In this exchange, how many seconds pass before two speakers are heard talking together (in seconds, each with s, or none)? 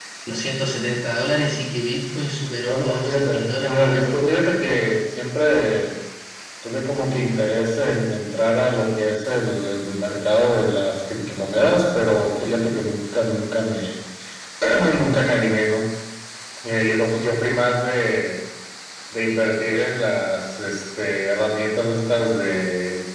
2.6 s